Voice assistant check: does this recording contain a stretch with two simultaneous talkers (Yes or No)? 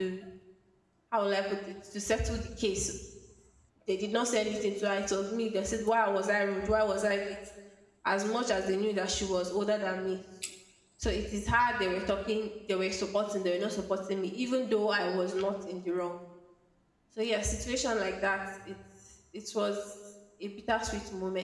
No